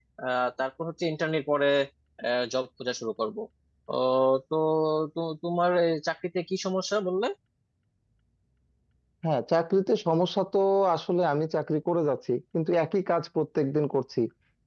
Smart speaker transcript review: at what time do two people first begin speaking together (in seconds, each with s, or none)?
none